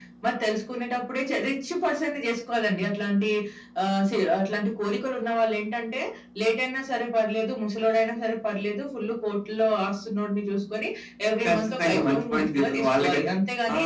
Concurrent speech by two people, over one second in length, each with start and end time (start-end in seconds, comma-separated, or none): 11.4-13.2